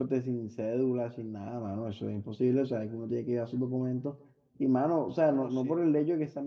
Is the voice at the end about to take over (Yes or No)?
No